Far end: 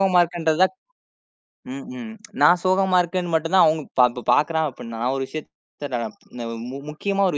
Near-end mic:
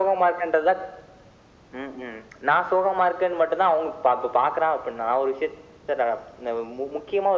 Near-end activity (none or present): none